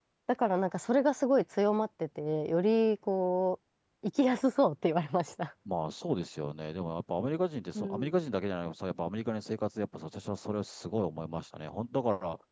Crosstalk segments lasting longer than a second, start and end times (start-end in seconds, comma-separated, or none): none